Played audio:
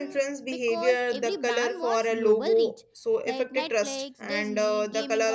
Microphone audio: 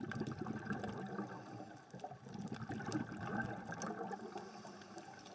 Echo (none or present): none